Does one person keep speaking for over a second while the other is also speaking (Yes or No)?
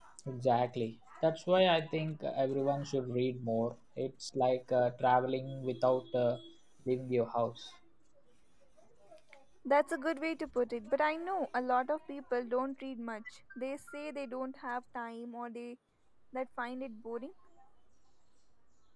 No